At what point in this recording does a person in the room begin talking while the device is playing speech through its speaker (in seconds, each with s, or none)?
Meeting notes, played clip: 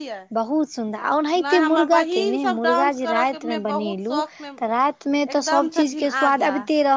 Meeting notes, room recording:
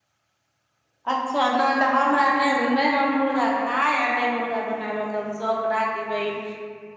1.1 s